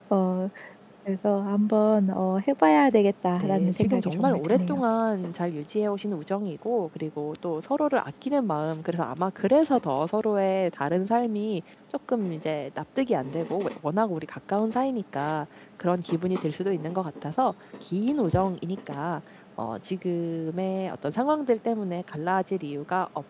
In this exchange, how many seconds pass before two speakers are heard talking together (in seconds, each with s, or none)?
3.4 s